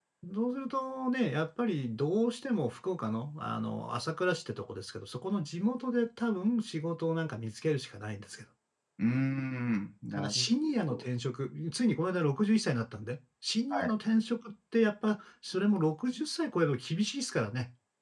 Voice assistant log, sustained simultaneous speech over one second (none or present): none